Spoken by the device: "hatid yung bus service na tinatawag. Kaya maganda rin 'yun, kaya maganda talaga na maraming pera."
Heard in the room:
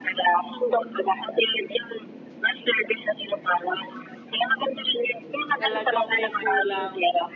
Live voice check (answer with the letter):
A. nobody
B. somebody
B